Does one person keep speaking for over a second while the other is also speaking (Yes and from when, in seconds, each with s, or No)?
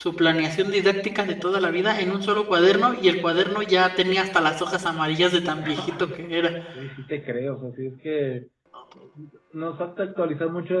No